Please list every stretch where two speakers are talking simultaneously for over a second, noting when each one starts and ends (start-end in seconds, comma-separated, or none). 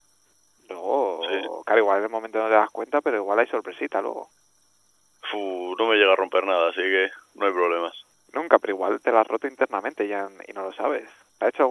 none